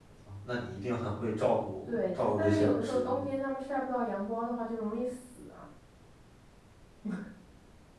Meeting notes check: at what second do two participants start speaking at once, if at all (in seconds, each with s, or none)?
1.9 s